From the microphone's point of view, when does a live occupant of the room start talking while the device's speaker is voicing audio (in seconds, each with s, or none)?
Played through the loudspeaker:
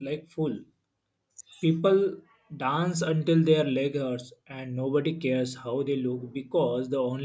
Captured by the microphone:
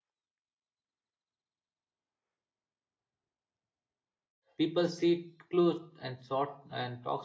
4.6 s